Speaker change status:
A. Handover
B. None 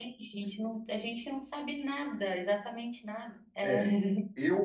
A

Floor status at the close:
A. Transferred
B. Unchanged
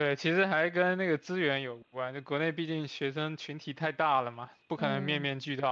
B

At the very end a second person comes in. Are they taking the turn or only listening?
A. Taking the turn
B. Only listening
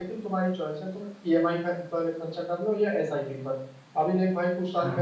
B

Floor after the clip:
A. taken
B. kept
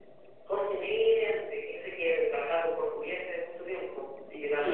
A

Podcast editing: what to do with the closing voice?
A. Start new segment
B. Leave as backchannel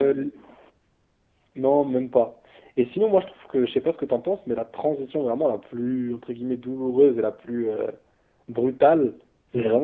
B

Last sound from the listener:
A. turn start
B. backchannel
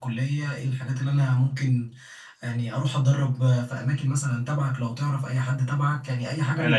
B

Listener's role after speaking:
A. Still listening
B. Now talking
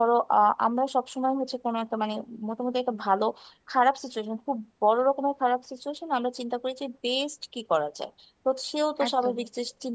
A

